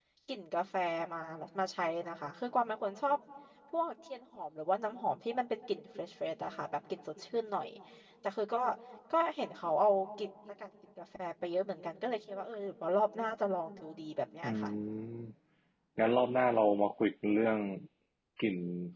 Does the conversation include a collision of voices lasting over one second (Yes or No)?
No